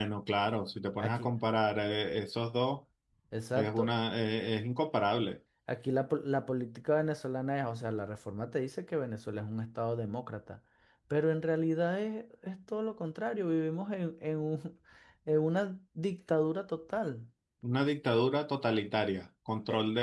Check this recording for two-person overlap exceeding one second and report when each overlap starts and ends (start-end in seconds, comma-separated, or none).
none